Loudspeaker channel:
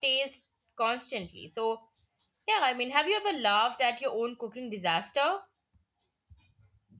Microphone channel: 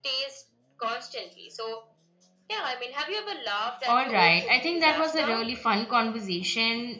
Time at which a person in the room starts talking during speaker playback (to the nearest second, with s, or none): 4 s